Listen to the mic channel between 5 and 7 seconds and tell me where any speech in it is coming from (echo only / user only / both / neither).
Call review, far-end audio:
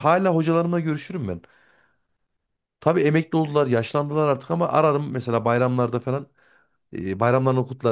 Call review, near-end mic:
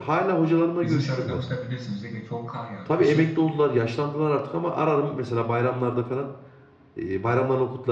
echo only